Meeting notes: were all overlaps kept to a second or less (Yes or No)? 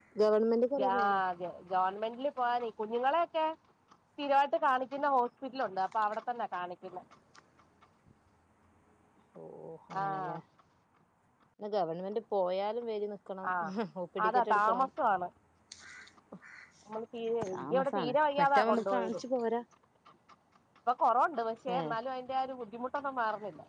No